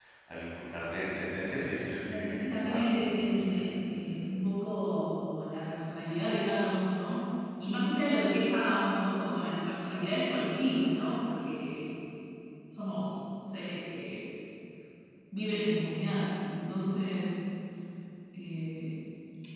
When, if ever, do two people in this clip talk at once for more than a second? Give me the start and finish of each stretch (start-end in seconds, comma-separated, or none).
2.1-3.7